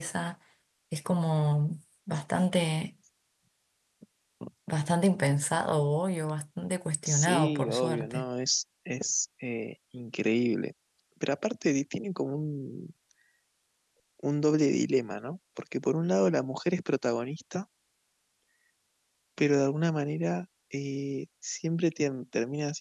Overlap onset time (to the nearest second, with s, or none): 7 s